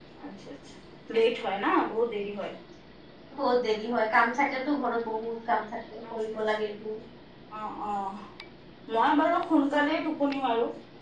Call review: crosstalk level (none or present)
none